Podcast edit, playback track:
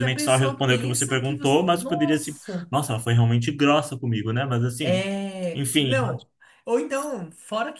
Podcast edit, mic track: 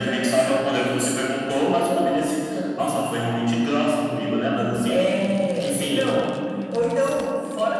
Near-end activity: present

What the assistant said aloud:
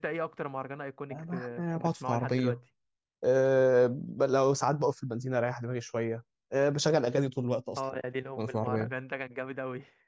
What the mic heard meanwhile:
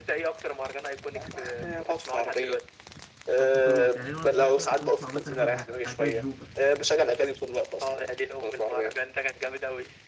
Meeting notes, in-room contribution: present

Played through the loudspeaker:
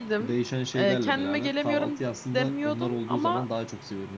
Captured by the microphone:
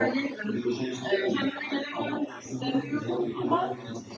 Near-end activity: present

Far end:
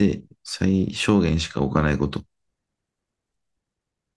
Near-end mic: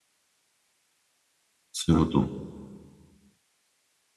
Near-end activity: present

